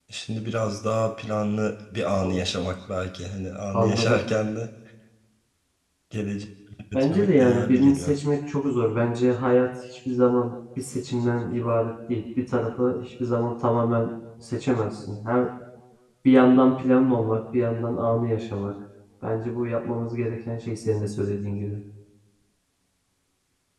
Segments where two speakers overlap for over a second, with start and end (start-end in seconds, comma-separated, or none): 6.9-8.2